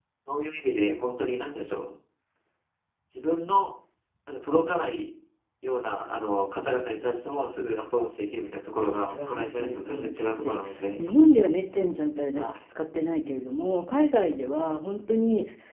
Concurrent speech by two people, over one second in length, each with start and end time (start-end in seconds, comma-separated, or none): 9.1-10.6